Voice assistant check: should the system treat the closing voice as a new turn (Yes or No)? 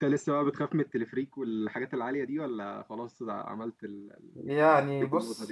Yes